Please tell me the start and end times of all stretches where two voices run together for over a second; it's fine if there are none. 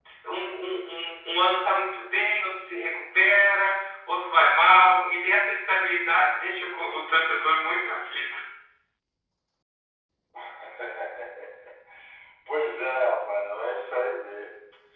none

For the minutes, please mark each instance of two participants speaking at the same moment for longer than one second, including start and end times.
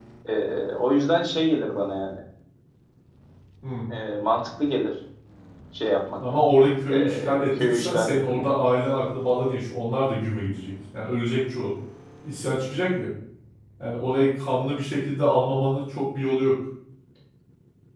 6.9-8.5

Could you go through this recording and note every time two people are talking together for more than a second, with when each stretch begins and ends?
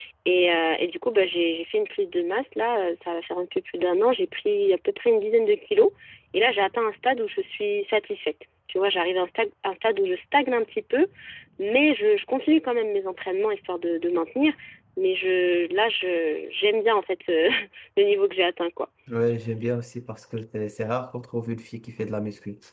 none

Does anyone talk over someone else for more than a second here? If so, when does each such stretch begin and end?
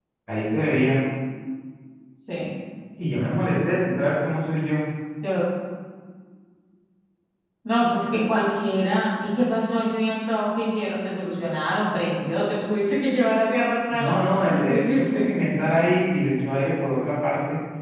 13.9-15.3

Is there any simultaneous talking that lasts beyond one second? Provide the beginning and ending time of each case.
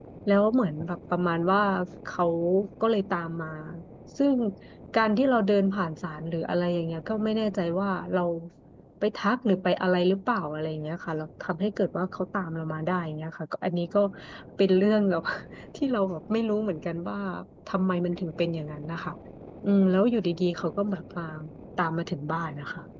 none

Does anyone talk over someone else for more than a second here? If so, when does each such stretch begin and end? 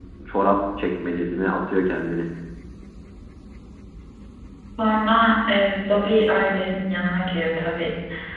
none

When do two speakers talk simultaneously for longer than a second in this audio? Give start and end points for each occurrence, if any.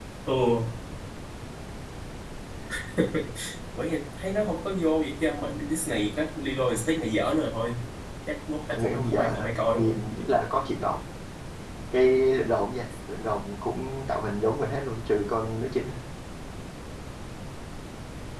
8.8-10.0

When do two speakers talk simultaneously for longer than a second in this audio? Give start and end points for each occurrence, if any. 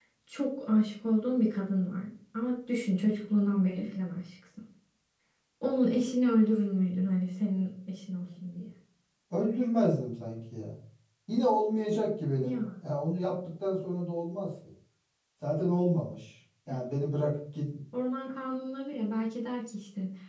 none

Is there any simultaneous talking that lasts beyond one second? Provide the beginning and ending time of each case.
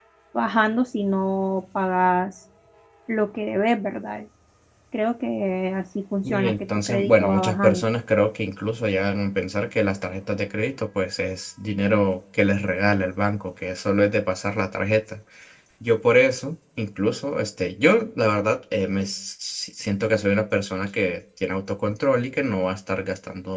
6.2-7.8

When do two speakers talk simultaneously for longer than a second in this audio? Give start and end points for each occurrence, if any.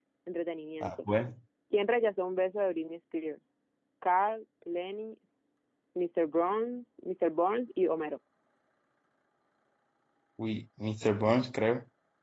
none

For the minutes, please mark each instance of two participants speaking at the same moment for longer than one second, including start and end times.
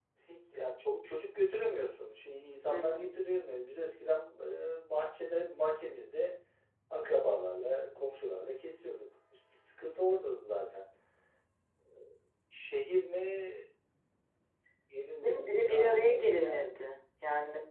15.2-16.7

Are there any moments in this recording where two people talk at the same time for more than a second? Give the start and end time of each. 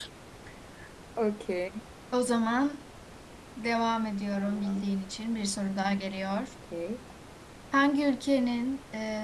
none

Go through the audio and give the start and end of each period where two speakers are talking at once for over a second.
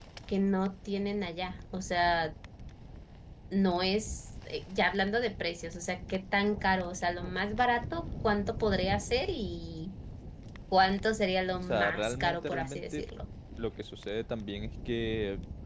11.6-13.1

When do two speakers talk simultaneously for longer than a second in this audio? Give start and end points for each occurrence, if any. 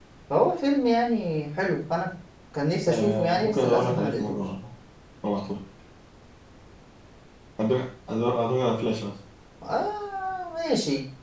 2.9-4.4

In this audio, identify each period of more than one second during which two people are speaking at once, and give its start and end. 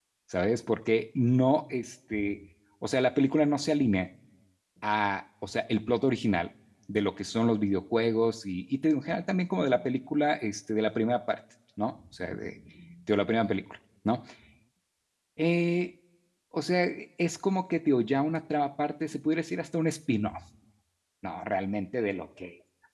none

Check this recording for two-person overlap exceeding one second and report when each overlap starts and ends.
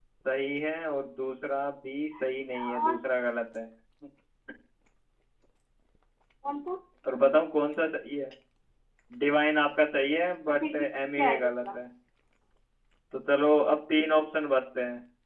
10.5-11.8

